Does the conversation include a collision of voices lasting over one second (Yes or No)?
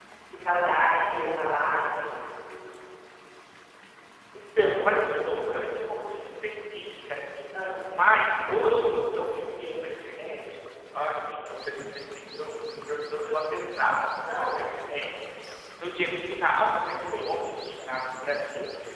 No